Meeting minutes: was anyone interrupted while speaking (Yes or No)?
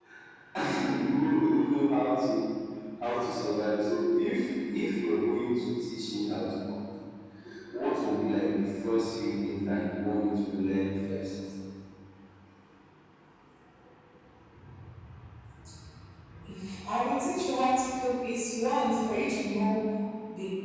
No